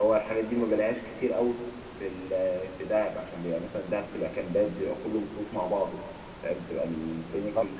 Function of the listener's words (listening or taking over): taking over